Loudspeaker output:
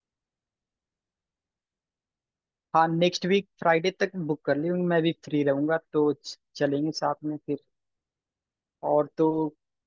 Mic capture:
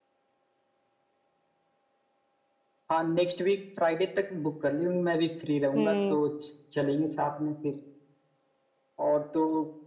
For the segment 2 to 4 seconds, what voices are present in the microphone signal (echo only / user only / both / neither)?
echo only